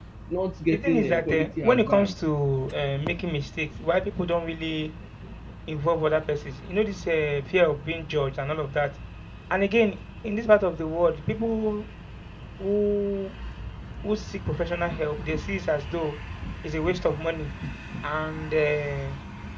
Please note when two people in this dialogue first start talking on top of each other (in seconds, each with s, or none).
0.7 s